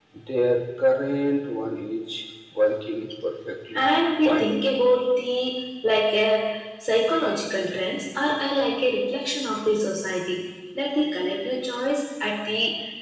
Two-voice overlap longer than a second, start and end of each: none

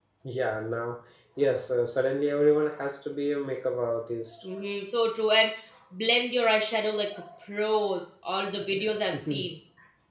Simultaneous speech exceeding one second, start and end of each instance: none

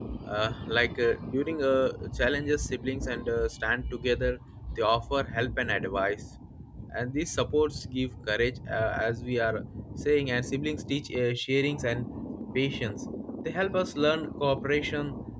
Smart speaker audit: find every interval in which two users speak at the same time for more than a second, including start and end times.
none

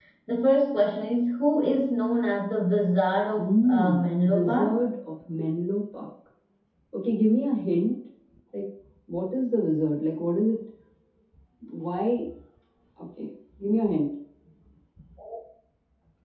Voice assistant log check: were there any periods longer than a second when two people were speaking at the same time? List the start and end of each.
3.4-4.8

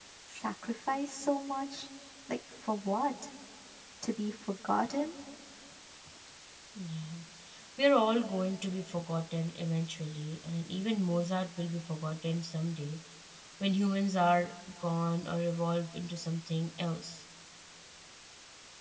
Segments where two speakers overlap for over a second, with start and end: none

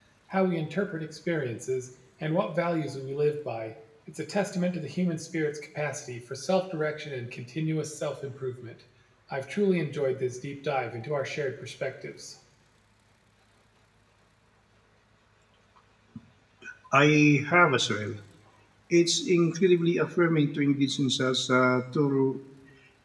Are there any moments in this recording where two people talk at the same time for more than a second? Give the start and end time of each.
none

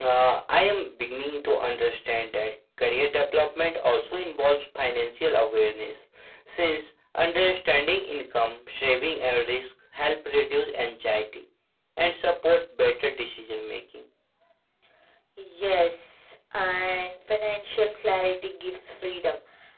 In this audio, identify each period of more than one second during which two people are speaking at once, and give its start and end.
none

